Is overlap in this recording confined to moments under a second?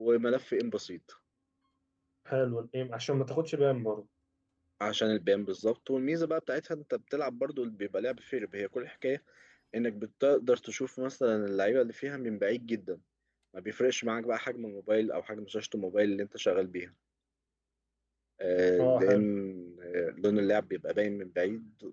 Yes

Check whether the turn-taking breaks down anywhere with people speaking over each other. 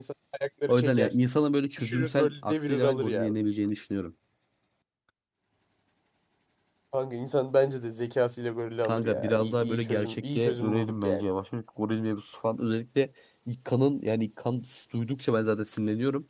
Yes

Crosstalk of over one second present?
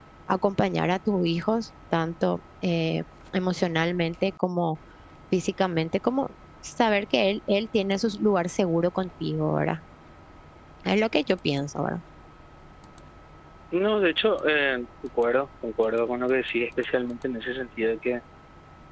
No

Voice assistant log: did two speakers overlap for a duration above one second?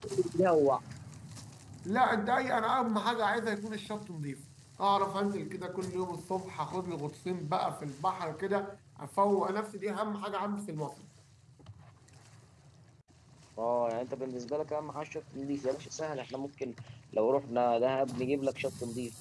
No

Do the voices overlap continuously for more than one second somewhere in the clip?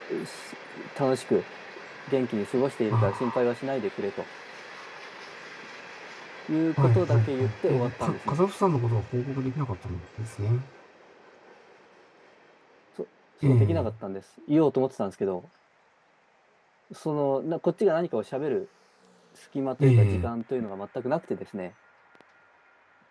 Yes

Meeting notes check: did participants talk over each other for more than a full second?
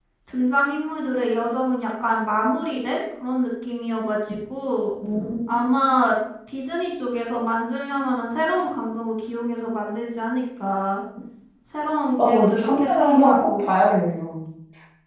Yes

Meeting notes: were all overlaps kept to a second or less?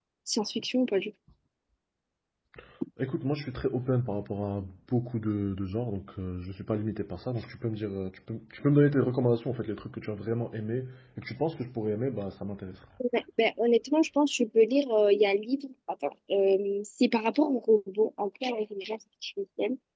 Yes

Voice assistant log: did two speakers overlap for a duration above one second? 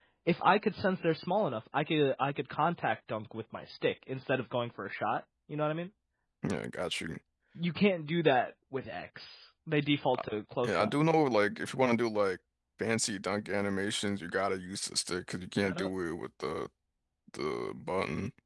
No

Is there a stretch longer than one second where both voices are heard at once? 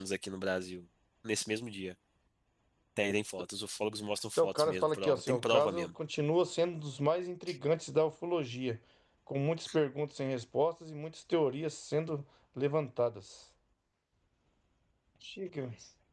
Yes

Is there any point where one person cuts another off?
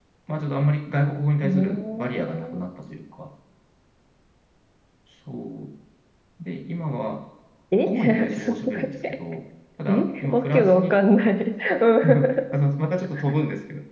Yes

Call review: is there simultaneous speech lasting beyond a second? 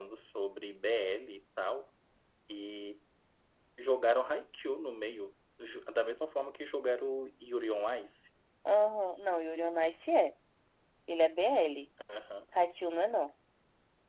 No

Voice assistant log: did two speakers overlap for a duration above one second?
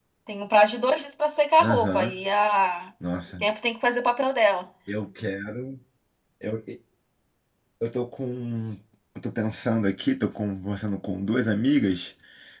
No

